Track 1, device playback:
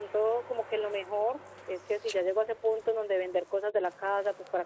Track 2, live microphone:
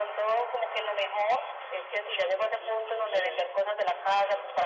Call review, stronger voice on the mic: echo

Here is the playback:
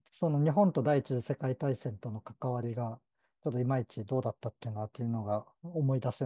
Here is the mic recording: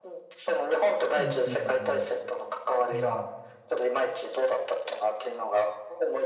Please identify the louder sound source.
echo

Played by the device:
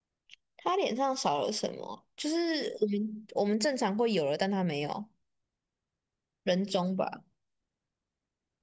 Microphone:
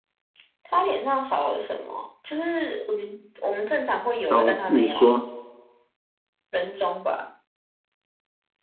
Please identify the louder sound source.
user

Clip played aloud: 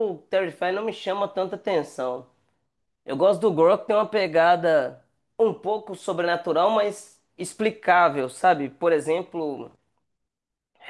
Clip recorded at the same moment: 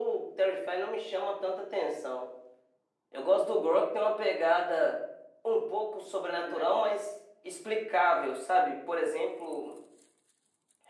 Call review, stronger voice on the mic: echo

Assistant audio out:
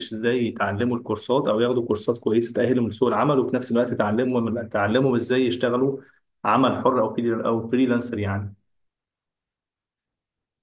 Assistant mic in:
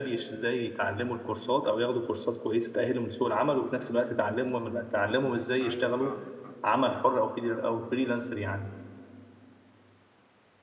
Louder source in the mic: echo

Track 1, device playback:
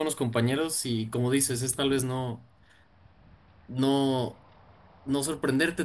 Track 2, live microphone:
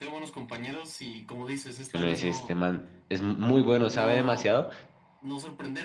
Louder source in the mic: user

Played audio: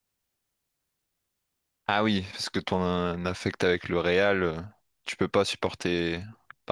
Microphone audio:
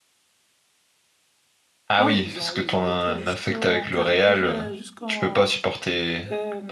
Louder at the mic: echo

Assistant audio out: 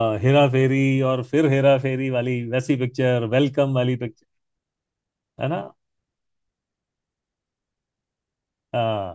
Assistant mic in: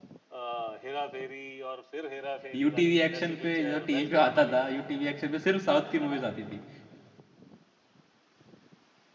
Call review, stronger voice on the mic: user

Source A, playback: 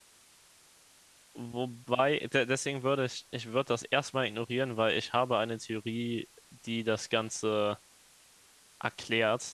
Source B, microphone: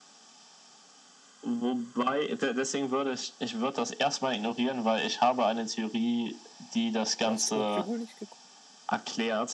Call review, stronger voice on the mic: echo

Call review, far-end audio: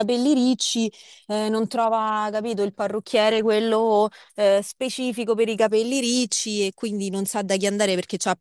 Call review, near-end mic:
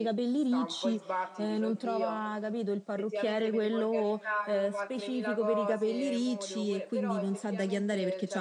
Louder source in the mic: echo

